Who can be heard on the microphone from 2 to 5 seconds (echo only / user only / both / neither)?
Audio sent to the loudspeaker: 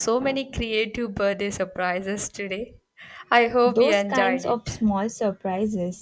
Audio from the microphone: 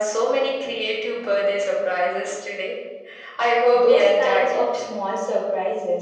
echo only